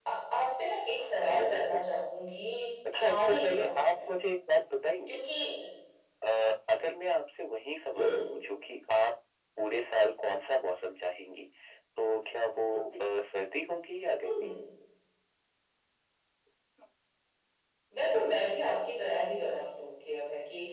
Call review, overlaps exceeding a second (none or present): present